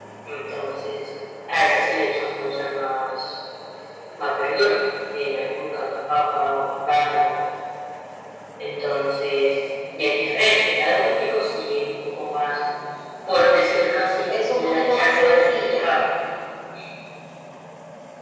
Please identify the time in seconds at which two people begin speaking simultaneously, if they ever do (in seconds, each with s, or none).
14.3 s